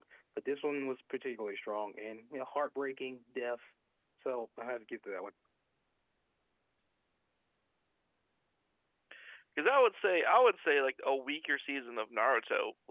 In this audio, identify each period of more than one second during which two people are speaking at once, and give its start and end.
none

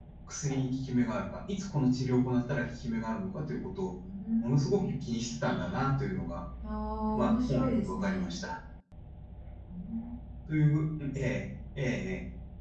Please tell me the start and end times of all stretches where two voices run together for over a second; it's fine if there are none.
7.1-8.4

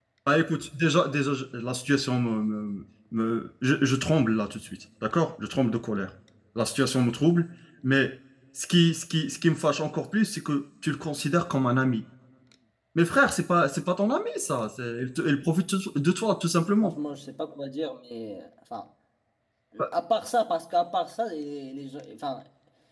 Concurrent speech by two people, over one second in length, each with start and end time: none

